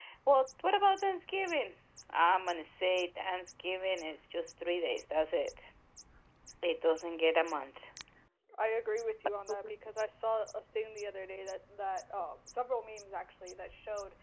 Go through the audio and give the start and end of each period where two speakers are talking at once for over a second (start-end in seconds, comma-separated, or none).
none